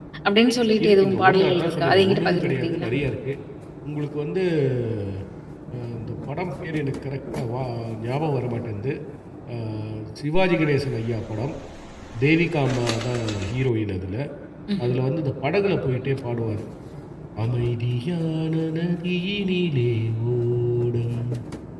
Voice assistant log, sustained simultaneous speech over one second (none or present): present